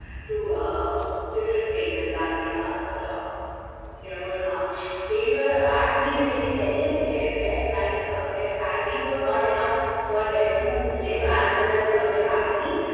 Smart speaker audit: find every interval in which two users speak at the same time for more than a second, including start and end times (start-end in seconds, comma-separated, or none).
none